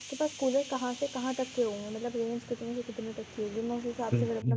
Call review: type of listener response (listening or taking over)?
taking over